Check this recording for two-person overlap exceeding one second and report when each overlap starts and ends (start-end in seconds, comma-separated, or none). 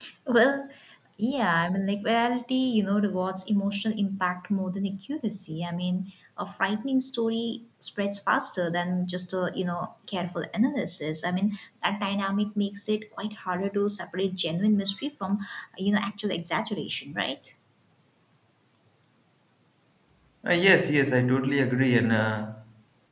none